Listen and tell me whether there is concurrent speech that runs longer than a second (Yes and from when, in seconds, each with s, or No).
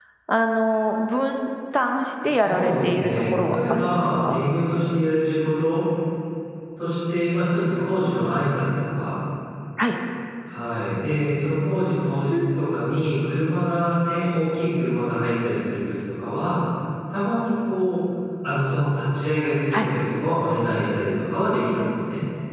Yes, from 2.2 s